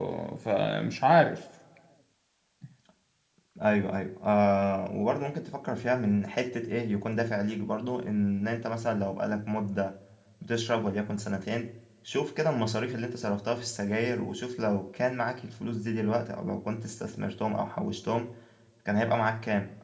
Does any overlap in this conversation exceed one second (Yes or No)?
No